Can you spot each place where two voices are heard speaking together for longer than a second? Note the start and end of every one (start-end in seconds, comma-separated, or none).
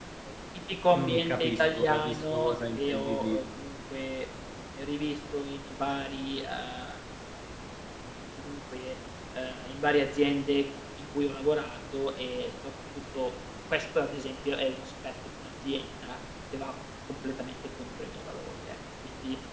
0.9-3.4